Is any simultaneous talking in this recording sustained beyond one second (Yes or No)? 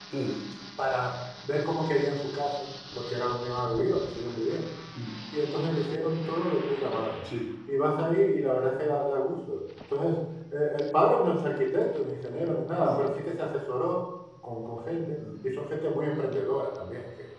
No